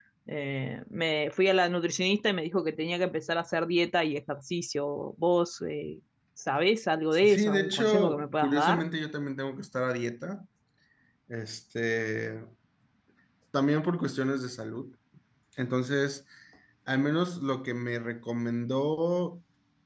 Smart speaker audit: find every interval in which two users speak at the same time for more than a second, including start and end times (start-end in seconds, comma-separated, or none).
7.1-8.8